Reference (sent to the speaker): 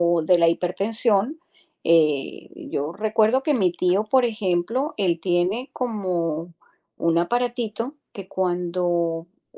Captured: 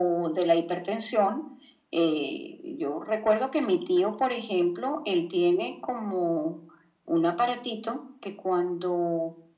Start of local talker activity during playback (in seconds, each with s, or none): none